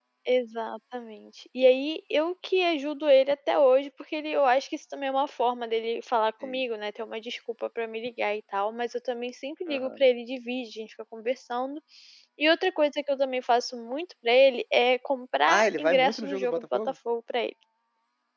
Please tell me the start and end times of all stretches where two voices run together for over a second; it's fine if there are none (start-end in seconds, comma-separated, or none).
15.5-16.8